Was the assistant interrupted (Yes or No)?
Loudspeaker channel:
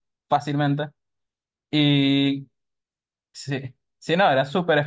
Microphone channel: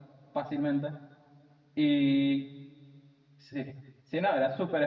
No